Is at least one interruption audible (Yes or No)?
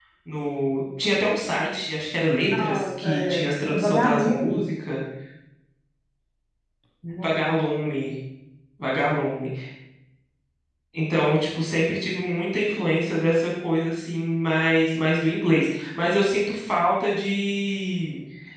Yes